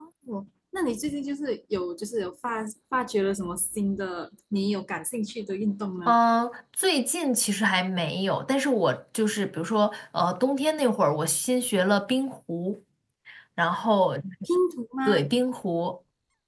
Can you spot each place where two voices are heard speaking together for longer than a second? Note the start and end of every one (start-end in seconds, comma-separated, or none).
none